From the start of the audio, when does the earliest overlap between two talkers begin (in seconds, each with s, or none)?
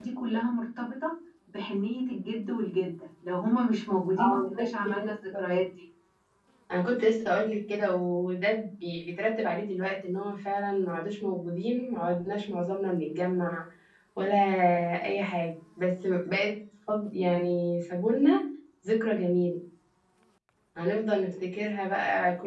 4.2 s